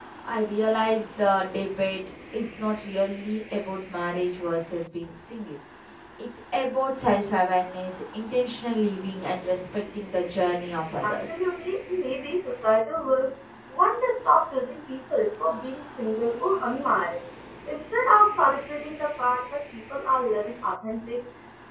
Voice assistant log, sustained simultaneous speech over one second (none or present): none